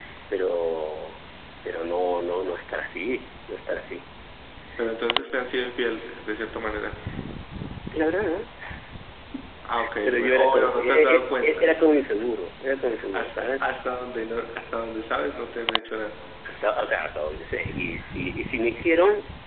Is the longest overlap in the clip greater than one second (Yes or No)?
Yes